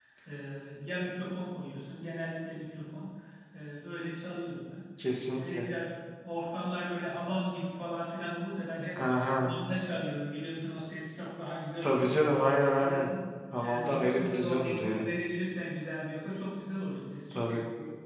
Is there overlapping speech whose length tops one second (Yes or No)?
Yes